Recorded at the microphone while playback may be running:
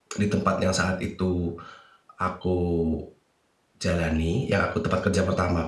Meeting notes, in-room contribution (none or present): present